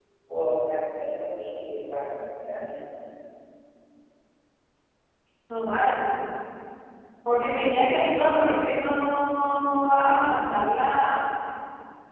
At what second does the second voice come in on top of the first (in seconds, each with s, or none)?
none